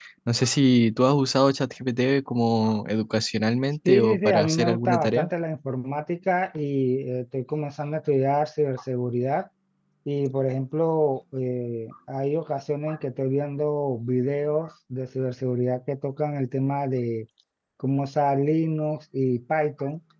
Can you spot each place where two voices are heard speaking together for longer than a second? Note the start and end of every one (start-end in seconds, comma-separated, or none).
3.9-5.3